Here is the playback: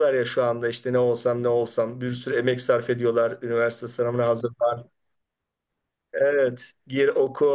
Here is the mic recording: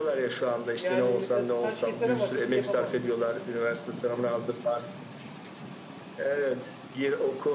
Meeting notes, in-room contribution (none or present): present